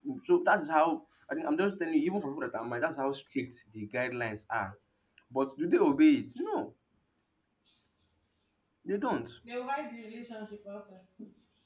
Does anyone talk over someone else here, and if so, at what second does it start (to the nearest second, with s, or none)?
none